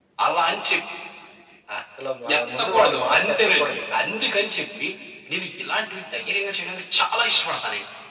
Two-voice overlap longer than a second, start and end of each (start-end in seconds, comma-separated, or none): 2.4-3.8